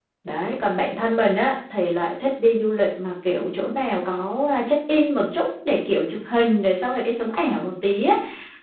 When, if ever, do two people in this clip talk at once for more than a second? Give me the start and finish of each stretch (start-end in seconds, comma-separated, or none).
none